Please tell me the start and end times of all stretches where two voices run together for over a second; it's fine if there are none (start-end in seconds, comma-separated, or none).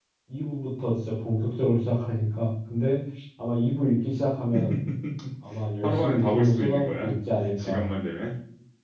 5.8-7.1